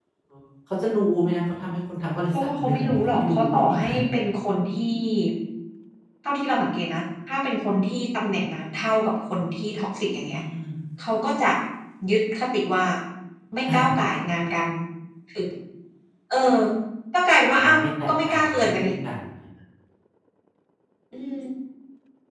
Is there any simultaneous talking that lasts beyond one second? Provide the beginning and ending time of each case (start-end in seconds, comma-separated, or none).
2.3-3.8, 17.6-18.9